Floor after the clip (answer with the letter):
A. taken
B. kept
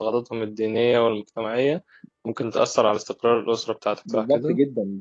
A